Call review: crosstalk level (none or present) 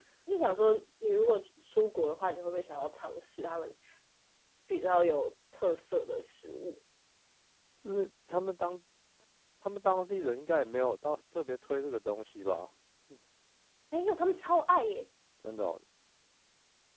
none